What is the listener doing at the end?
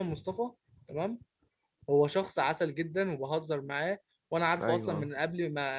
listening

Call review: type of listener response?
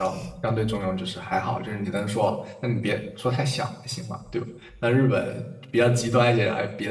listening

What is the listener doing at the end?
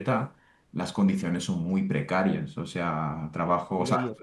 listening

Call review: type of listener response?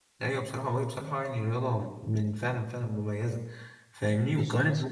listening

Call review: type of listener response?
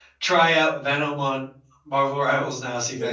taking over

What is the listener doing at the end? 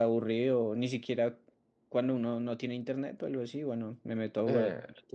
taking over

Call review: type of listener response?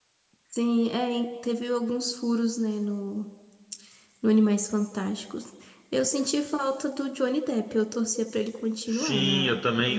taking over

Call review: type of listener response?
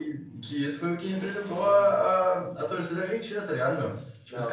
listening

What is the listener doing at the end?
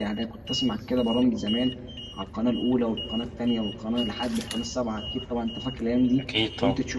listening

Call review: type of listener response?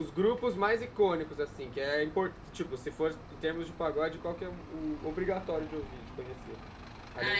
taking over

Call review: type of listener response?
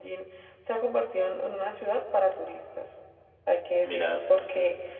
listening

